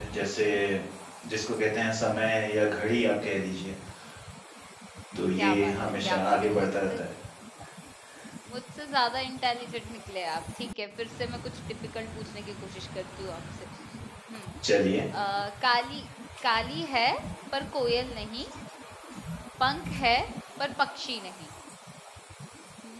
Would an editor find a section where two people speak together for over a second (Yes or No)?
Yes